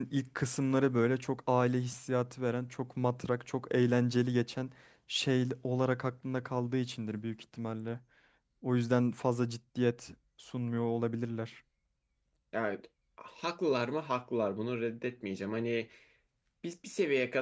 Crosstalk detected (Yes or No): No